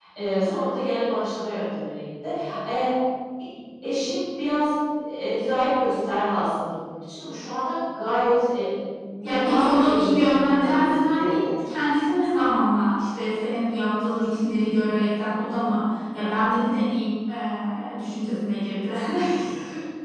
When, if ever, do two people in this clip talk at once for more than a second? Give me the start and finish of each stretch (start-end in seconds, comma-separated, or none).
9.2-11.5